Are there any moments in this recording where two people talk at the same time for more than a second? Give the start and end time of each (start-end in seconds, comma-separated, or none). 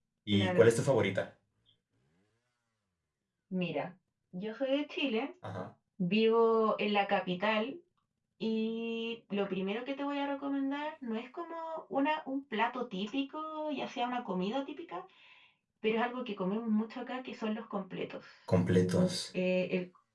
none